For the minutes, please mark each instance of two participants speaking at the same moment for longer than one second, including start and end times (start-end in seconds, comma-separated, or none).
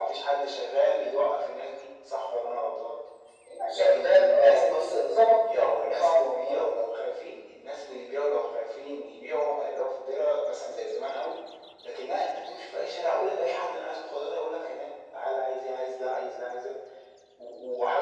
3.7-6.5